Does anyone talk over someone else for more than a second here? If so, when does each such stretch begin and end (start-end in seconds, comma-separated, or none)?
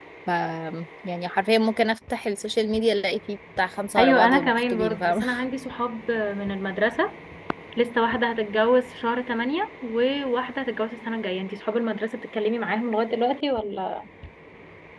4.0-5.2